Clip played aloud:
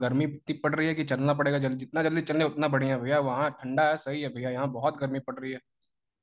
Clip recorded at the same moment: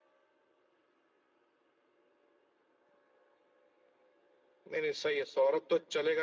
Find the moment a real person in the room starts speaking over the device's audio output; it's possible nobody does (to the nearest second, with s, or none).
5 s